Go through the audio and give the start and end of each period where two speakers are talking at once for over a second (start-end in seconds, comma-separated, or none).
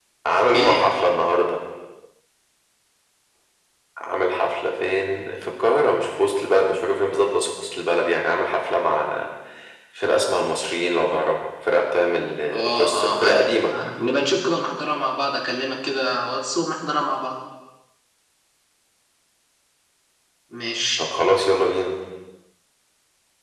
12.5-13.7